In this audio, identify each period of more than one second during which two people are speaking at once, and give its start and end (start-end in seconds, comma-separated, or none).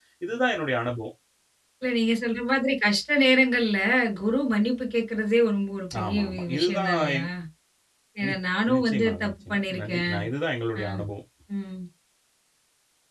6.0-7.2, 8.8-10.1